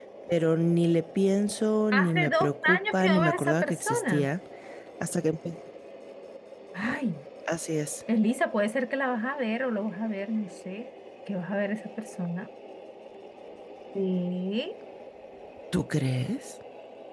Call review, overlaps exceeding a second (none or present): present